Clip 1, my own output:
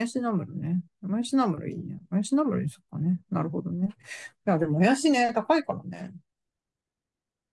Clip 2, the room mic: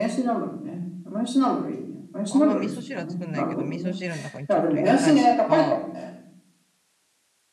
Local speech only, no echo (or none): あんま味噌汁は作んないけど、味噌汁の中にちょっと入れたりとか、